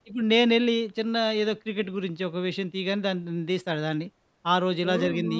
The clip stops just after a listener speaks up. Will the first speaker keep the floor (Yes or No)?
Yes